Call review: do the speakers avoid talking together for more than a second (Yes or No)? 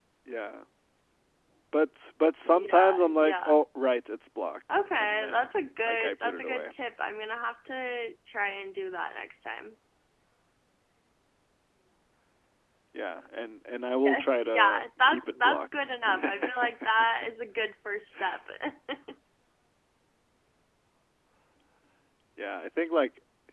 No